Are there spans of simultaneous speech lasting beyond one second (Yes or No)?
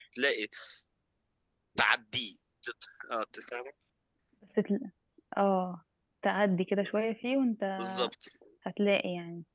No